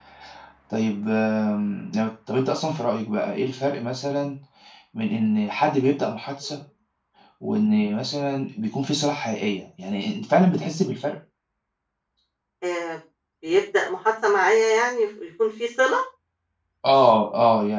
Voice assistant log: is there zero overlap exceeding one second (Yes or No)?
Yes